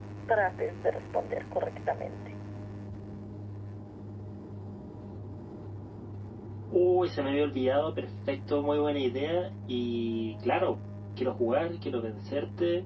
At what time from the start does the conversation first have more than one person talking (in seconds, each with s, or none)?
none